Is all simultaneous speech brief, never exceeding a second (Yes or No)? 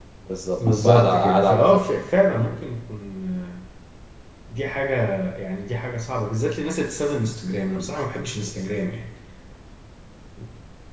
No